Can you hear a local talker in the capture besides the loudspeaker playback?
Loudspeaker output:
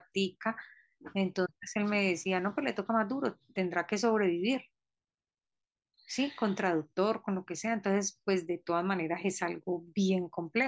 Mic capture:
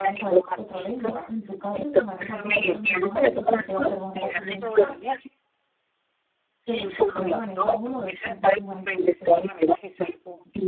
Yes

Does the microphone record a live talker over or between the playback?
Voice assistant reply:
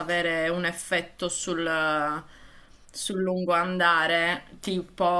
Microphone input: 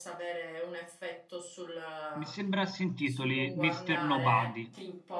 Yes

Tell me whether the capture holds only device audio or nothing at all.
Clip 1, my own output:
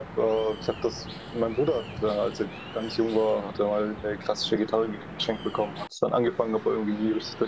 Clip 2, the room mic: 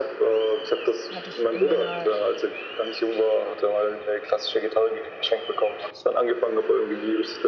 No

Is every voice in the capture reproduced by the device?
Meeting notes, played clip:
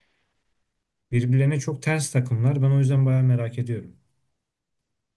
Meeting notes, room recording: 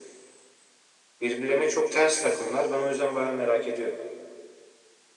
Yes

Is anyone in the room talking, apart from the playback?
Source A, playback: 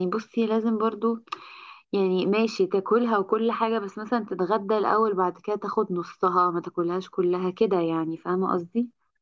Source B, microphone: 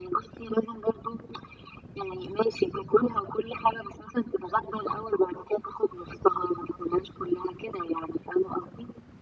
No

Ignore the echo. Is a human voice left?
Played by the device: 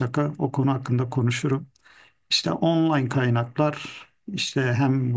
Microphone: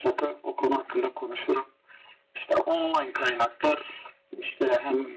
No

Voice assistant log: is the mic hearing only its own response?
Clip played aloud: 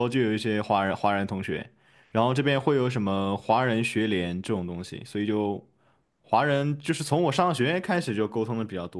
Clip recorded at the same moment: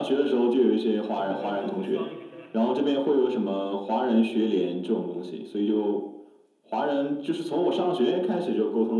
No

